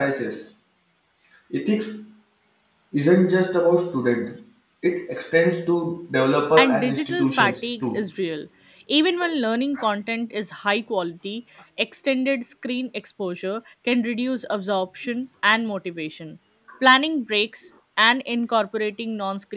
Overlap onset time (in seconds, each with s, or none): 6.6 s